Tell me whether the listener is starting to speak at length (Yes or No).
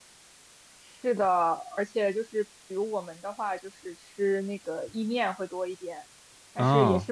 No